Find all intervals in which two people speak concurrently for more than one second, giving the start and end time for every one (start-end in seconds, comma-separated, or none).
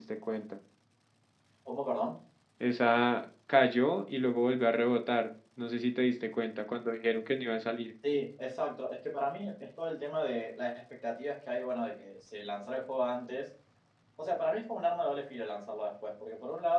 none